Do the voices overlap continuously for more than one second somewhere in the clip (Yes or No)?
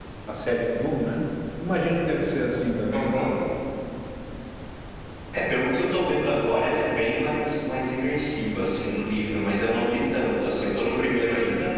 No